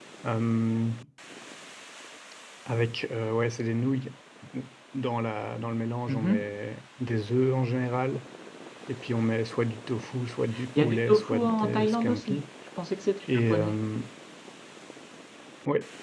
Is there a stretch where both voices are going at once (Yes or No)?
Yes